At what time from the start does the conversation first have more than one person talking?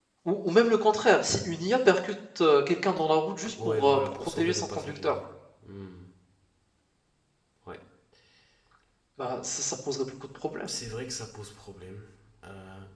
3.5 s

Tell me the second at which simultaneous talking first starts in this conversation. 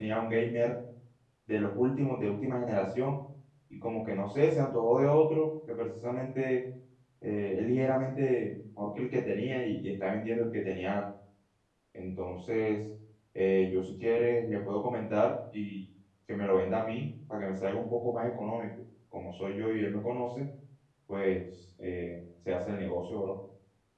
none

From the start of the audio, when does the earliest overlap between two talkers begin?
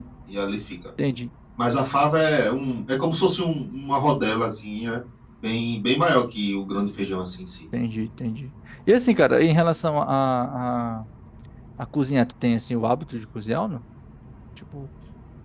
none

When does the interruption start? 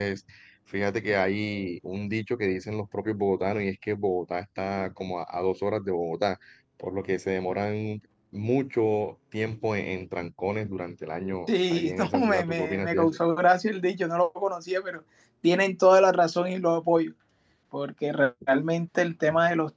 11.5 s

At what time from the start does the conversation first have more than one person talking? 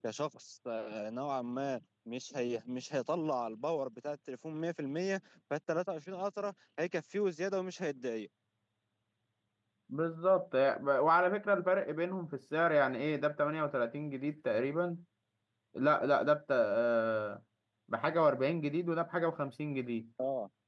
none

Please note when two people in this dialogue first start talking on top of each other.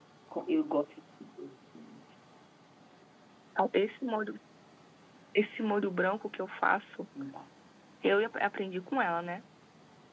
none

